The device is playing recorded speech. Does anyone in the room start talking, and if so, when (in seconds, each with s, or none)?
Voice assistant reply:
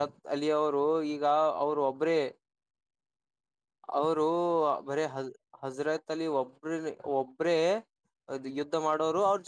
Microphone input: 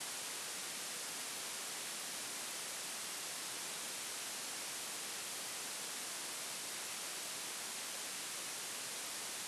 none